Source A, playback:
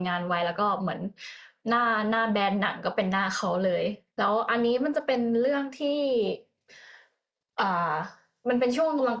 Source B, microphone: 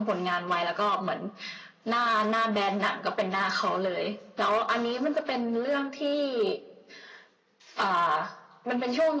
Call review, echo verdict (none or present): present